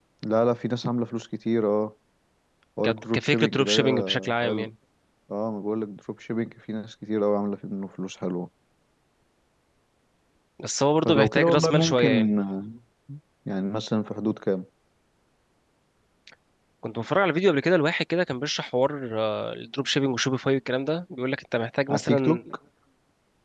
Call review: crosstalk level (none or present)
present